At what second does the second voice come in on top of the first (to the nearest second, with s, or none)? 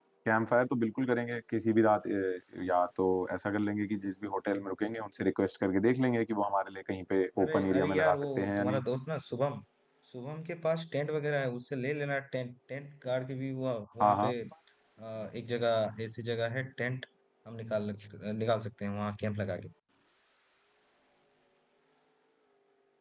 7 s